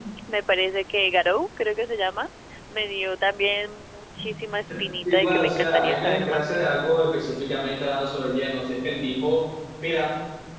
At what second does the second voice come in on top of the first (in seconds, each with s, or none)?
5.0 s